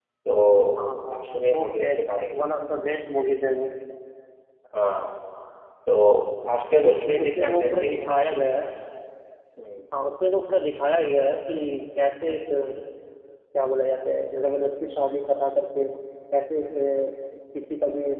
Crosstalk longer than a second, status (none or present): present